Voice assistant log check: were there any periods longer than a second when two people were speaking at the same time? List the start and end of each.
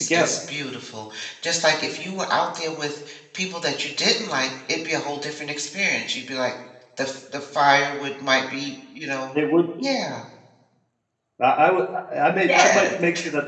none

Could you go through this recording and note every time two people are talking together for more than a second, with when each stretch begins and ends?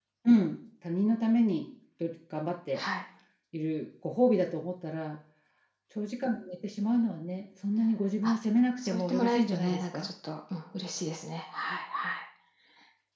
8.9-10.1

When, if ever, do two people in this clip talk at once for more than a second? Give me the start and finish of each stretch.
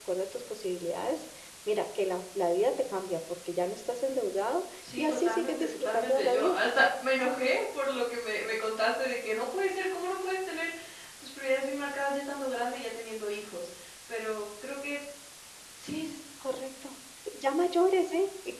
5.0-6.6

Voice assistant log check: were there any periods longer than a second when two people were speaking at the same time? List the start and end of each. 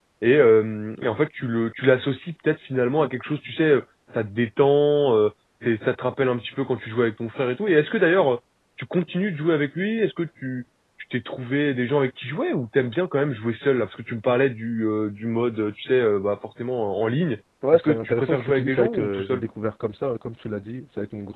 17.7-19.4

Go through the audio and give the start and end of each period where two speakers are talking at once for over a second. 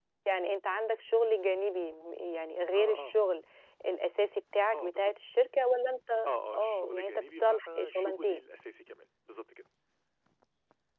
6.5-8.4

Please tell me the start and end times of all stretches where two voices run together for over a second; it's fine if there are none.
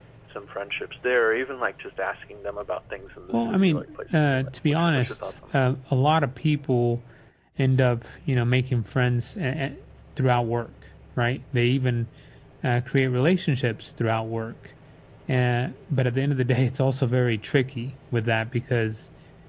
3.3-5.6

